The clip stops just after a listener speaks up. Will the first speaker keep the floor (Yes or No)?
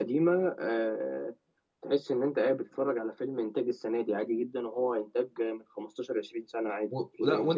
No